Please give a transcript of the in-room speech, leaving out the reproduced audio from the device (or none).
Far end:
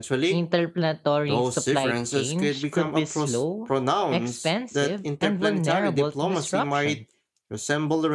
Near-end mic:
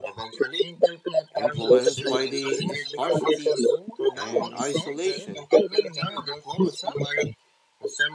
influenced by the scarcity and isolation